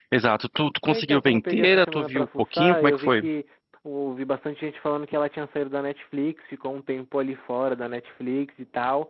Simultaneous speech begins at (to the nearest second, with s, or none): 1 s